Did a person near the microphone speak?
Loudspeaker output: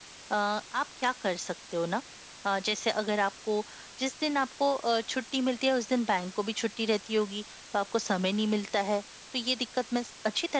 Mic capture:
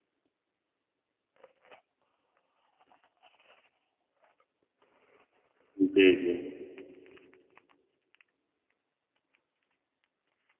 Yes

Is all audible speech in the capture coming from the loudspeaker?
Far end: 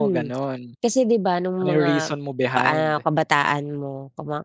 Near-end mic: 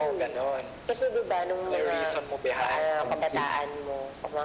No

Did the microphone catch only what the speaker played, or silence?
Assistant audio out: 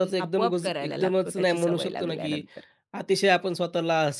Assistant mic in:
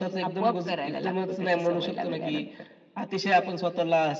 Yes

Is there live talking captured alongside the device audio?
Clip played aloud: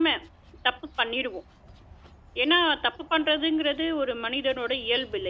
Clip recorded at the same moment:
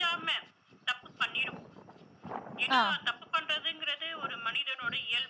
Yes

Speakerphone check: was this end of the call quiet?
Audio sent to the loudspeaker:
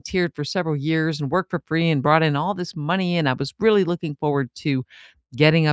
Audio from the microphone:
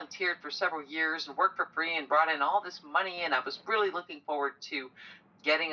Yes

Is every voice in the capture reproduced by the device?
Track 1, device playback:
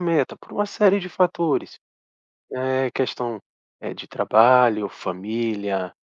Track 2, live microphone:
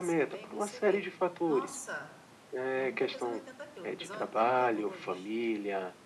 No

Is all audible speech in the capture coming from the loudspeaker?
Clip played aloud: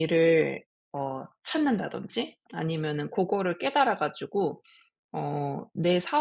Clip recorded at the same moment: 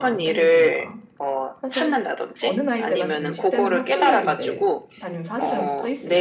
No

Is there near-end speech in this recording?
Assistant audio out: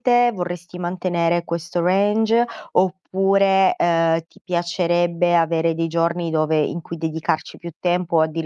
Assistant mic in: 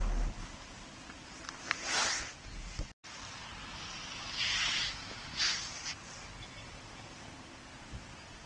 No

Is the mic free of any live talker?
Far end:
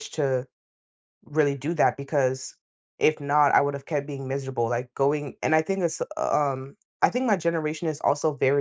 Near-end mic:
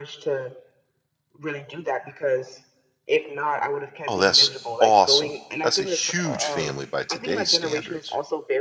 No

